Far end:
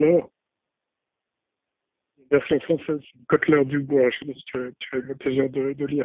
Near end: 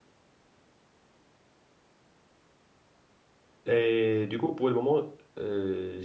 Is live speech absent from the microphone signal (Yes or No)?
No